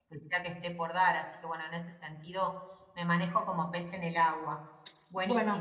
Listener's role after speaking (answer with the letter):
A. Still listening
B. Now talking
B